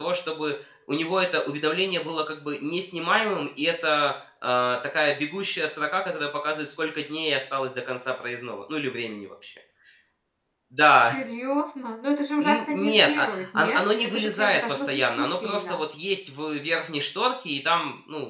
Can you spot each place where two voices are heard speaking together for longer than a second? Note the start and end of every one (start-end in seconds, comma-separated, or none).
12.4-15.8